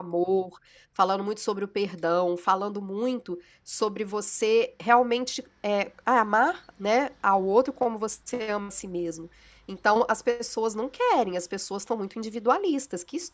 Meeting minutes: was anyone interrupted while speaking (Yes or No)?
No